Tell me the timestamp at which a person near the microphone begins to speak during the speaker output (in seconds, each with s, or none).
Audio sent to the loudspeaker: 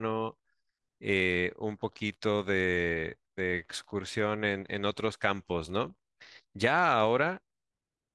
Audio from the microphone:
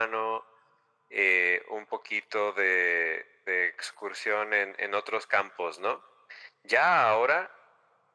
none